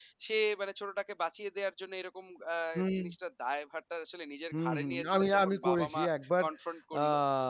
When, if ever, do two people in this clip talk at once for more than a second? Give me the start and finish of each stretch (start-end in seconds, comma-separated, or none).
4.6-6.0